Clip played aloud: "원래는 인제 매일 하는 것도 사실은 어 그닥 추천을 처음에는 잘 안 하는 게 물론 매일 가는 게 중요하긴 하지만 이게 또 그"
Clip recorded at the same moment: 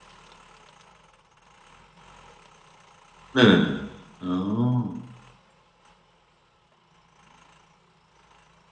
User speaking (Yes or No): Yes